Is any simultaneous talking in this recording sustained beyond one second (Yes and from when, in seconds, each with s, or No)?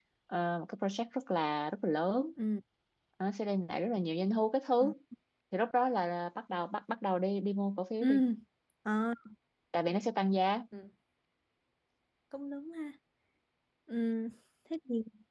No